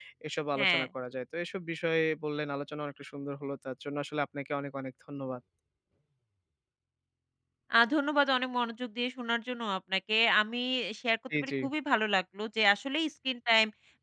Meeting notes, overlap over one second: none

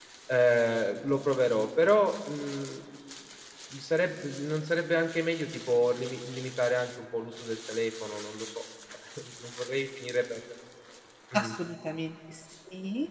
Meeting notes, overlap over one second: none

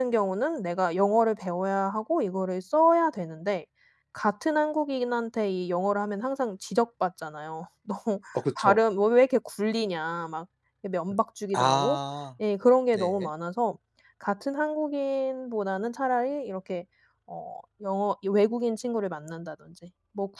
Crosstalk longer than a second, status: none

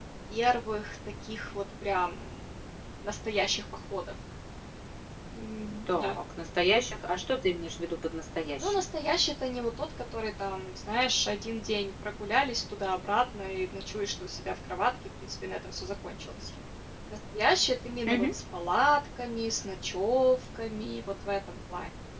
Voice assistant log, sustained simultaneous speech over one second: none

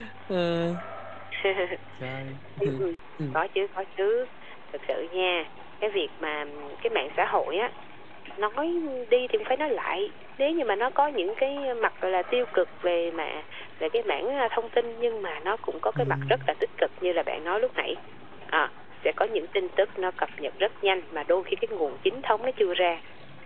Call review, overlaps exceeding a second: none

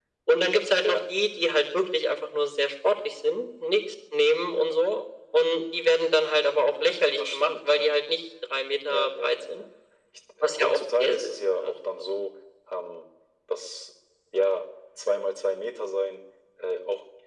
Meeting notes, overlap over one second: present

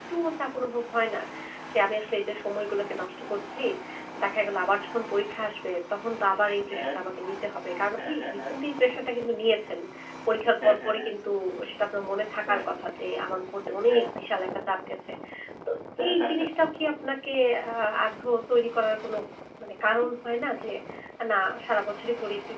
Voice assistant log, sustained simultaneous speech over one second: none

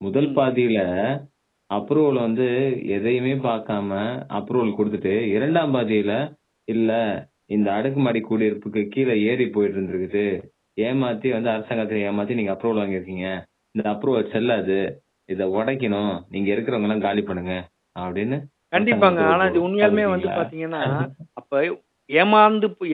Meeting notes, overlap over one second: present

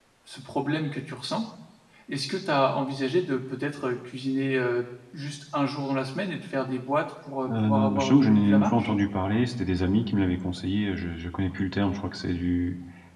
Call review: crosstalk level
present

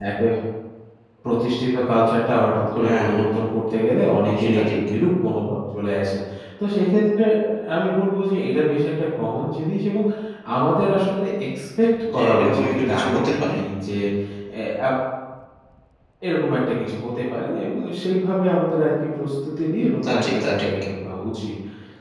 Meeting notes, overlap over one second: present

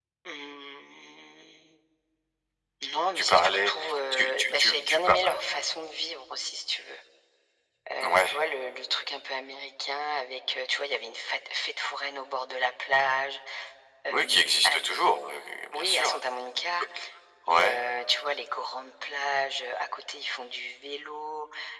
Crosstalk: present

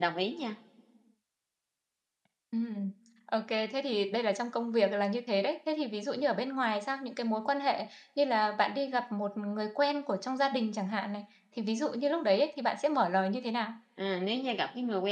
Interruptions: none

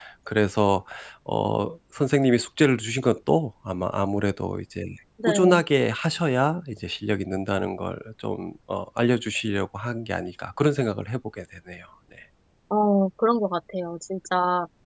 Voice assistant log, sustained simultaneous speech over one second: none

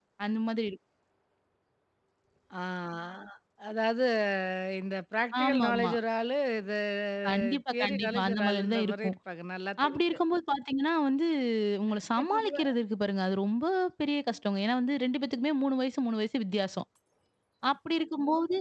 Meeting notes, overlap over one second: present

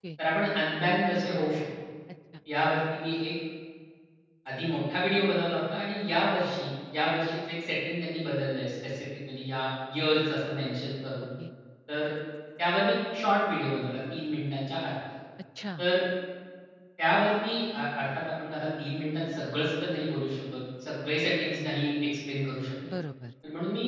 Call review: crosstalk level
none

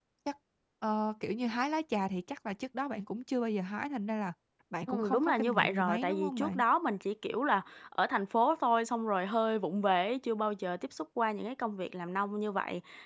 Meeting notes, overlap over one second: present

